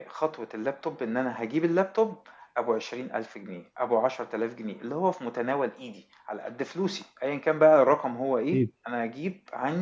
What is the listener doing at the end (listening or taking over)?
listening